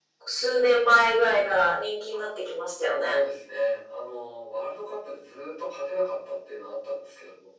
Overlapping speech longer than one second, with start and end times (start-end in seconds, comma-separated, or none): none